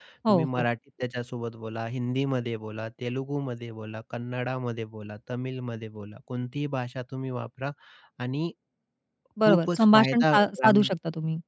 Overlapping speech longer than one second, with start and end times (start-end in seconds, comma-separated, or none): 9.4-10.9